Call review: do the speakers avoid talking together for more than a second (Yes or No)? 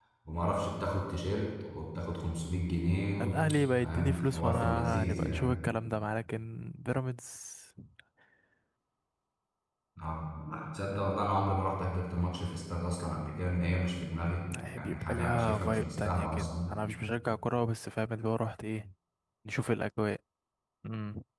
No